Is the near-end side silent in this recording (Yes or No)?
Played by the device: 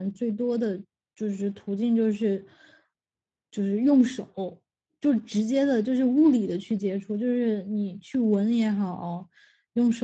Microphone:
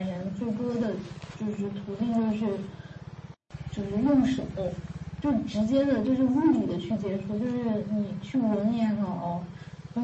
Yes